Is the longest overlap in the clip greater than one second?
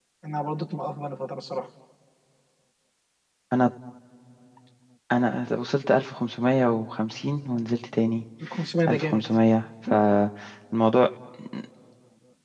No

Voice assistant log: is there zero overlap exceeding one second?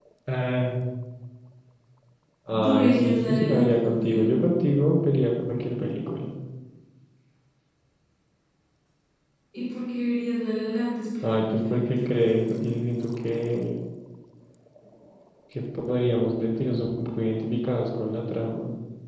No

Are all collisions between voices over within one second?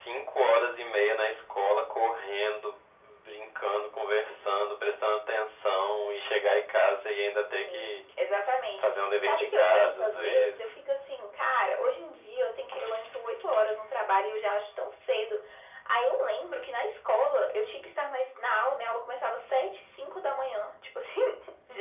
No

